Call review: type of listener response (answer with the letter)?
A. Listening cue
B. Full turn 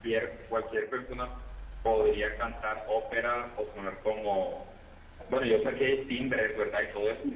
B